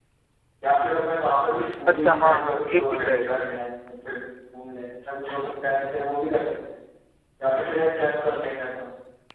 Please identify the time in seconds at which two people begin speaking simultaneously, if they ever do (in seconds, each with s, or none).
1.9 s